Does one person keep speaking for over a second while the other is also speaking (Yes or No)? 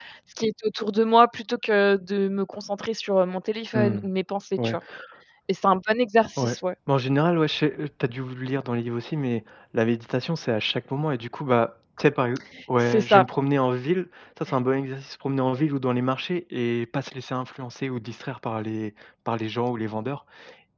No